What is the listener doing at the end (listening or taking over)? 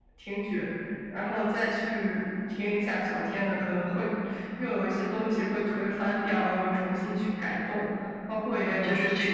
taking over